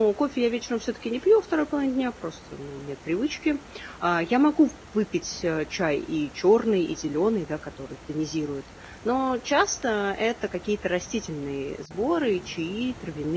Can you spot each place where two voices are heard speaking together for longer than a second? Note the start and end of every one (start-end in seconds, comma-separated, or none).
none